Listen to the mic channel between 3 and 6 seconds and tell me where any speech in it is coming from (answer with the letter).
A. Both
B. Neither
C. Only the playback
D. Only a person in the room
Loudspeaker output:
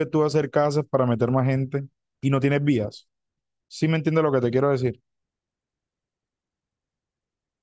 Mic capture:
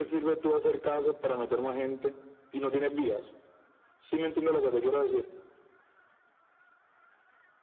C